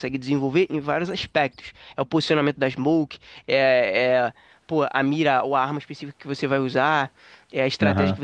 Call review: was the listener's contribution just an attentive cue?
Yes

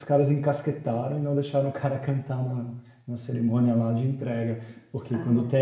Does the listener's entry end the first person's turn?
No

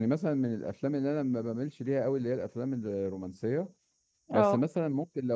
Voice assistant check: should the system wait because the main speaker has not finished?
Yes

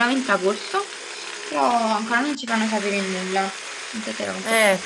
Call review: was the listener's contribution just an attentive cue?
No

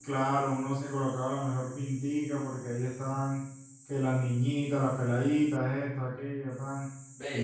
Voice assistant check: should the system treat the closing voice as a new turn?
Yes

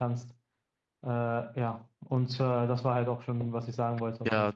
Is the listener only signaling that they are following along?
No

